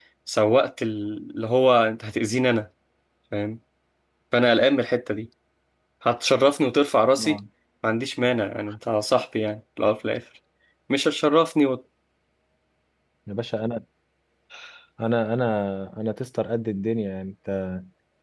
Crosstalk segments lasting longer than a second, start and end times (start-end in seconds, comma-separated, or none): none